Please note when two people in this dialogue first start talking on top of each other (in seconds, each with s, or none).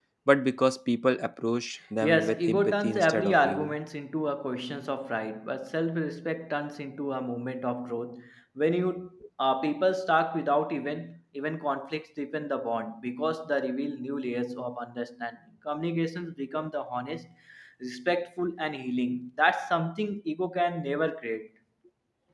2.0 s